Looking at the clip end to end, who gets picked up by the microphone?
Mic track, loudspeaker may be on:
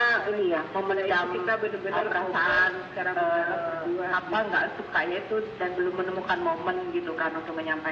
echo only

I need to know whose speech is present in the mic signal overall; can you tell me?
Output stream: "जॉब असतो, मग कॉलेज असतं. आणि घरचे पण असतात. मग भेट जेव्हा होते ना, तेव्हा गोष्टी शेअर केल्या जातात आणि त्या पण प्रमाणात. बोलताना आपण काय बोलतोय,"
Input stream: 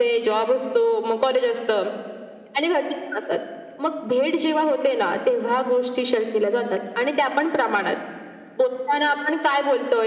echo only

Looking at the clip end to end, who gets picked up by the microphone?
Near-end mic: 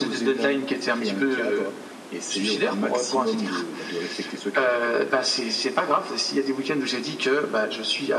echo only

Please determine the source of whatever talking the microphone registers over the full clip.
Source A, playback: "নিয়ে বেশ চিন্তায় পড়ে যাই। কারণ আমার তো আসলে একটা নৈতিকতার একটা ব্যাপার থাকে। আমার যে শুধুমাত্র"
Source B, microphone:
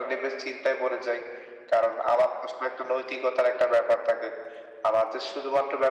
echo only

